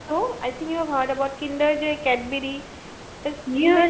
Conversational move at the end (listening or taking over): taking over